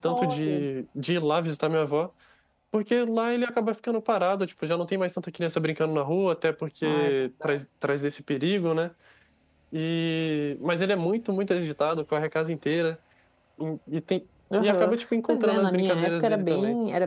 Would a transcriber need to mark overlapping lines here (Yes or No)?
Yes